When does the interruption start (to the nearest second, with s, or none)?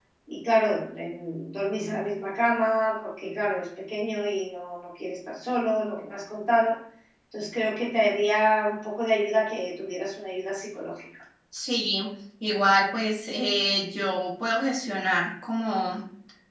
none